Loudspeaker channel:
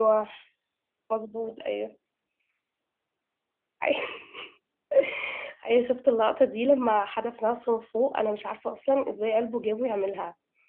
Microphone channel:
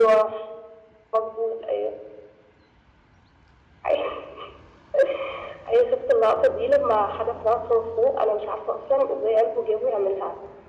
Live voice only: none

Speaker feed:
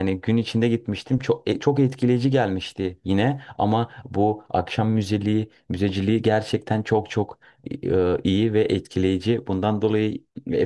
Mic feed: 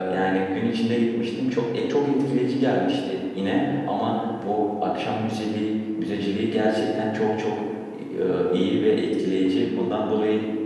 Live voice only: none

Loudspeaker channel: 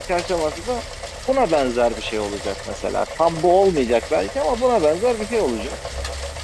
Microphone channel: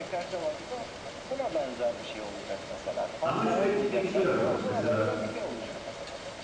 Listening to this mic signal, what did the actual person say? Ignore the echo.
Ama şöyle bir şey var bak. Mesela

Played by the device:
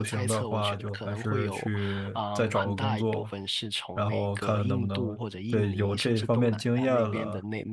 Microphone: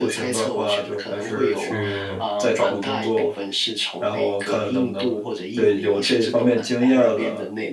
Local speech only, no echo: 哦，

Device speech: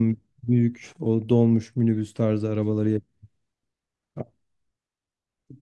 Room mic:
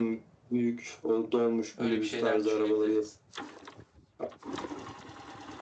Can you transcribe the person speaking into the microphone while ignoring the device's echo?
Öyle bir şeyler düşünebiliriz.

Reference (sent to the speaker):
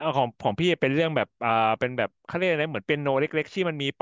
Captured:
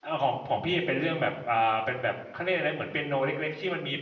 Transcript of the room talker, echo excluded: none

